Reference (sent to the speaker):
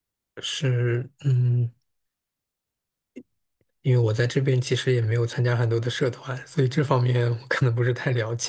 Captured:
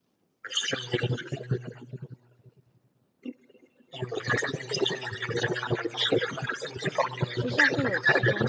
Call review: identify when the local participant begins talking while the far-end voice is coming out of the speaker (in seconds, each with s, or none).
7.3 s